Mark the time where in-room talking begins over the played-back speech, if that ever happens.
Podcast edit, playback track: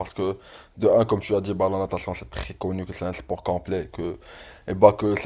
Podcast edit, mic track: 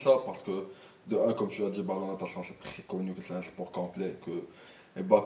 none

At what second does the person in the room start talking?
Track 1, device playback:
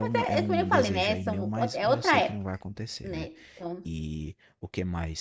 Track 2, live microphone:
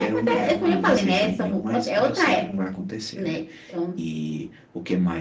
none

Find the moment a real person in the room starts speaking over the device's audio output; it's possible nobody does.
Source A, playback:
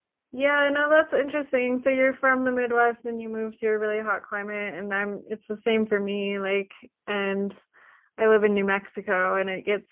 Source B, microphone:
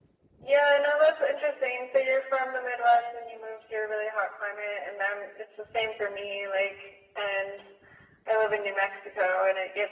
none

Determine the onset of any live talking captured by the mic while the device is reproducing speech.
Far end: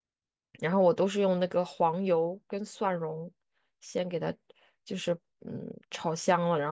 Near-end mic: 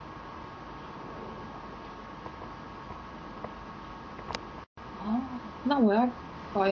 4.9 s

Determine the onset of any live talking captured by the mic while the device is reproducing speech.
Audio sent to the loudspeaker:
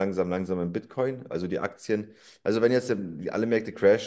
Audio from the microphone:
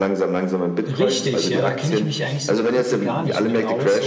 0.8 s

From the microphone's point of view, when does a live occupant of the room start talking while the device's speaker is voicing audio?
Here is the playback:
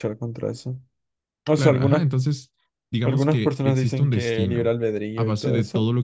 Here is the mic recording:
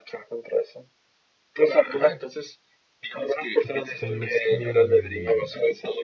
3.6 s

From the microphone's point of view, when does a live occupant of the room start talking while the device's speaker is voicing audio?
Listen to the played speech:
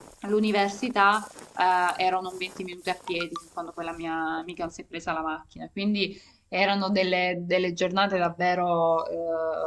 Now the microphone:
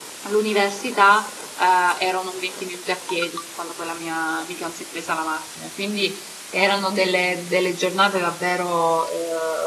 none

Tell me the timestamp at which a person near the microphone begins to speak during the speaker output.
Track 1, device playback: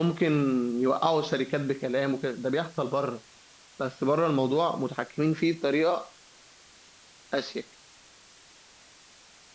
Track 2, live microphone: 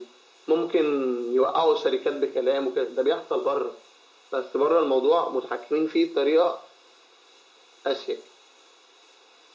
none

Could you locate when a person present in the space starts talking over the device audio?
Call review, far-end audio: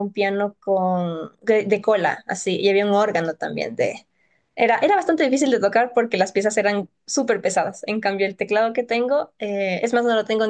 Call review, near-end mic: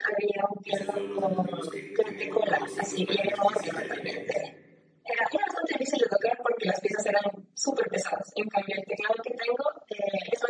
0.6 s

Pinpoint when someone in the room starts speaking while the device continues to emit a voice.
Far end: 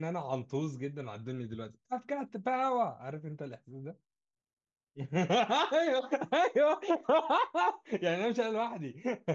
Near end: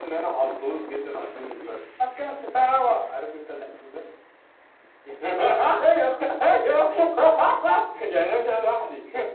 none

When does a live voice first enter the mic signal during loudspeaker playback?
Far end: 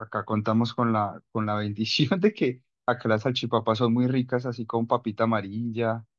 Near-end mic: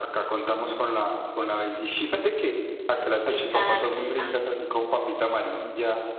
3.2 s

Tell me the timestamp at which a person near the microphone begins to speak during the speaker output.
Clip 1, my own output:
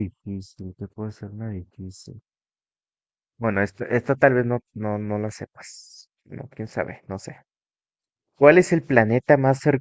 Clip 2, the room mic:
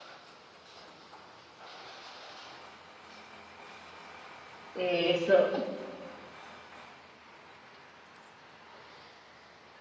4.8 s

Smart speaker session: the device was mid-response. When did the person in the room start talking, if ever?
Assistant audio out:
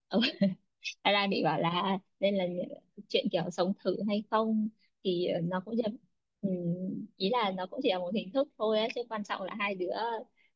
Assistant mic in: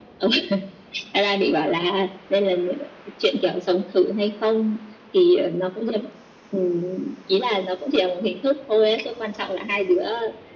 none

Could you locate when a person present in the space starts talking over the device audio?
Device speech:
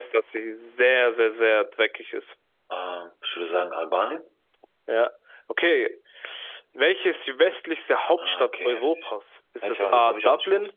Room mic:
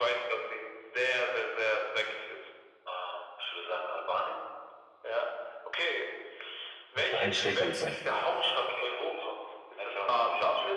6.9 s

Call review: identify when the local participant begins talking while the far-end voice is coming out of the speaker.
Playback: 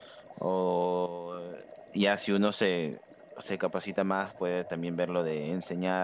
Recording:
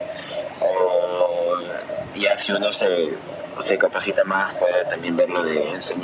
none

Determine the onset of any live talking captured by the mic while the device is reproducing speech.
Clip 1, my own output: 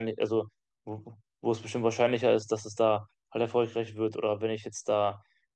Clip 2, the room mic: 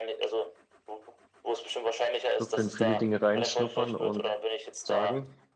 2.4 s

